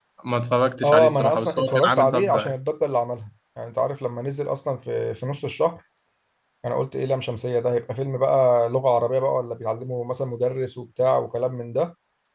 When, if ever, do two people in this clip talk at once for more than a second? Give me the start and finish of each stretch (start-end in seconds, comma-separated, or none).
0.8-2.5